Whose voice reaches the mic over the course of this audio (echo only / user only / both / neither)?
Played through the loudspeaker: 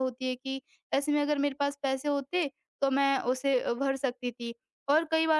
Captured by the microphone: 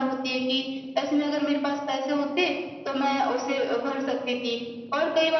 echo only